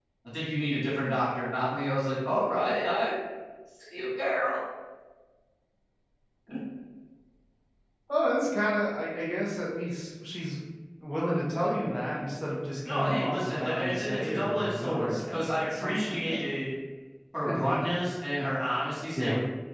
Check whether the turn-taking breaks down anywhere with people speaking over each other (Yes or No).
Yes